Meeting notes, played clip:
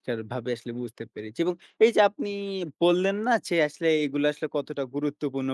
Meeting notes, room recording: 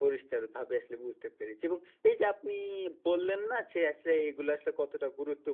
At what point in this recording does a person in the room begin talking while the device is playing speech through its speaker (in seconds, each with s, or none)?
none